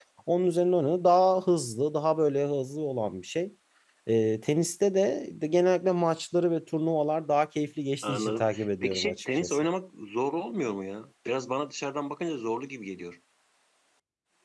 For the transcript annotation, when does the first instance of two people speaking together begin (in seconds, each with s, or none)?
8.0 s